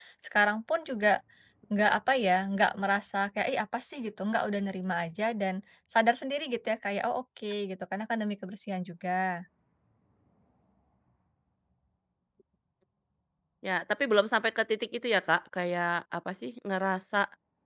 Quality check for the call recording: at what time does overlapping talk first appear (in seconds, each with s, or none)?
none